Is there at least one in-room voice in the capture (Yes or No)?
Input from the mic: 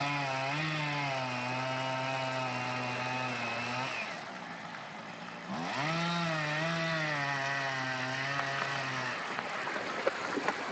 No